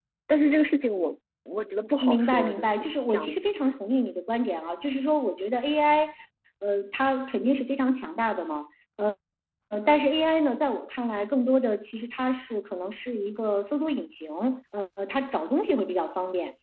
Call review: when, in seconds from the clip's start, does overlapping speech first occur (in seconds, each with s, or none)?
1.8 s